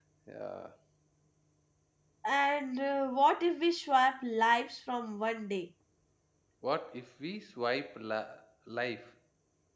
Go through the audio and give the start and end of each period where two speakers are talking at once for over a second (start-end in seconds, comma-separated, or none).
none